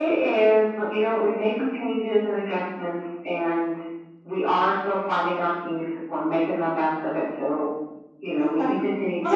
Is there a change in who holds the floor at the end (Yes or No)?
Yes